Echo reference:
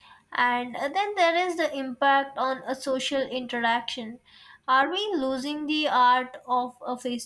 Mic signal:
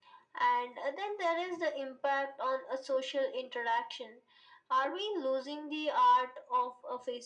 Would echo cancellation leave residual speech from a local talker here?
No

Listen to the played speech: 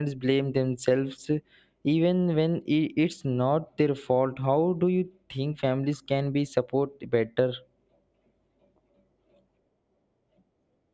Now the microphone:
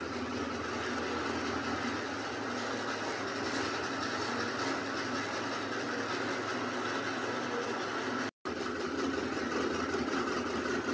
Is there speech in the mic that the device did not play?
No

